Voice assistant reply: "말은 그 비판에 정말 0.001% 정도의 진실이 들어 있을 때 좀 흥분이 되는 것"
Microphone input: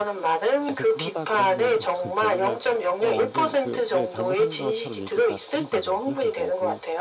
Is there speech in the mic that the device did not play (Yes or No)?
Yes